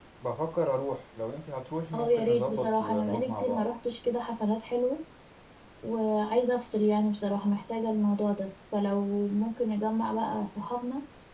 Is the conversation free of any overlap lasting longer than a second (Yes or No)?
No